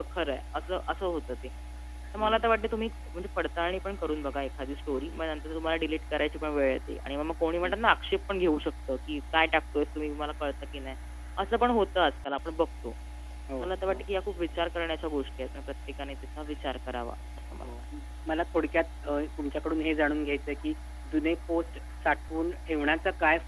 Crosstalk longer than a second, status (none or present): none